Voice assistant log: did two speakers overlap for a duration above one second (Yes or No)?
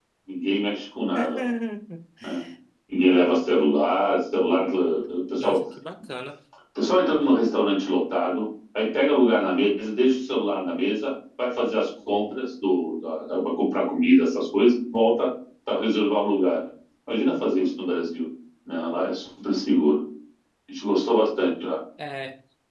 No